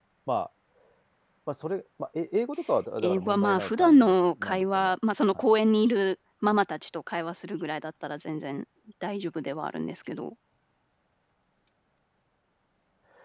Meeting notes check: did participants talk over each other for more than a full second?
Yes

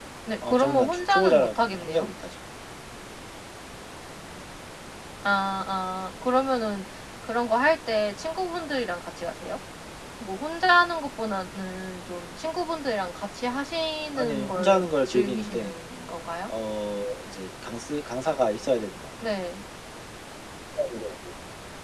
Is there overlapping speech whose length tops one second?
Yes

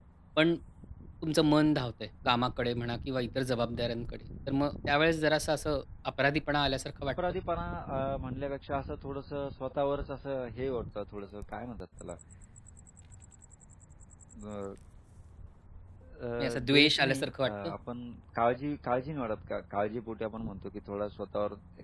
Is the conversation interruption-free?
No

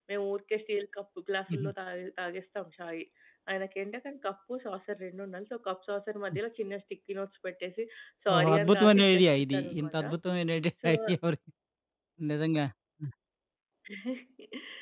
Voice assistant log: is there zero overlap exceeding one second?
No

